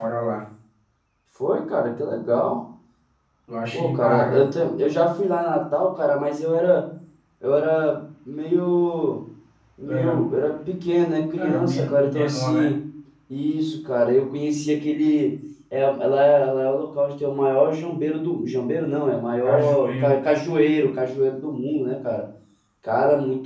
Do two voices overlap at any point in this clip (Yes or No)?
Yes